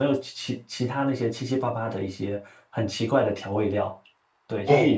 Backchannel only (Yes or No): No